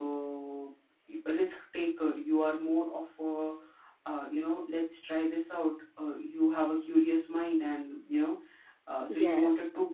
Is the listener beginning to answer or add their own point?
No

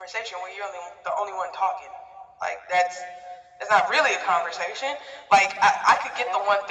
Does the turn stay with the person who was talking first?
Yes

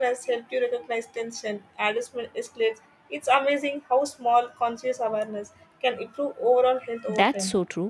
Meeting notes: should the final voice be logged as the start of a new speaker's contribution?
Yes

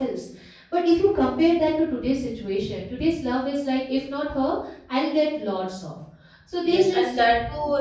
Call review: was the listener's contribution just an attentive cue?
No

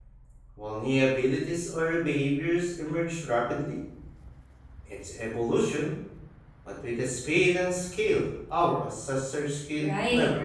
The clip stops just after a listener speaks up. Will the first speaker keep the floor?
No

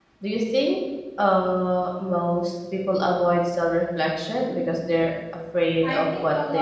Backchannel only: No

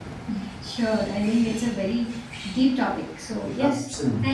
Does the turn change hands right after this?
No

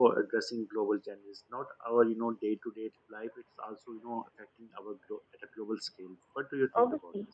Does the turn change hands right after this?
Yes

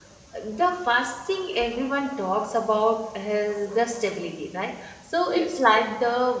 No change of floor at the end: Yes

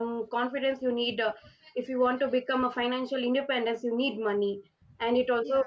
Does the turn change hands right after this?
No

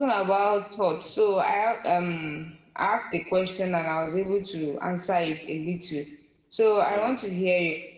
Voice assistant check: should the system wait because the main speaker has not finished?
Yes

